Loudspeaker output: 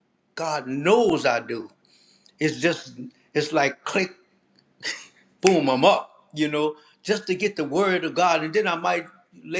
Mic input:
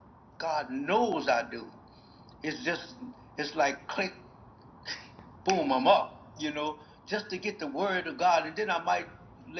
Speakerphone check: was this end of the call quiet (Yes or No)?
Yes